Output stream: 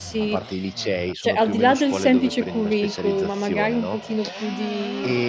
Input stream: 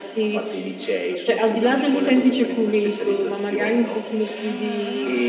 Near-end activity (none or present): none